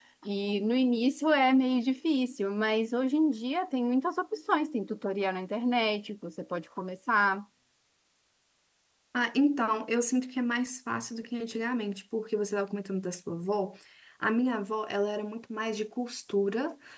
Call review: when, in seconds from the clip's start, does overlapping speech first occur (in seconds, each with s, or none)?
none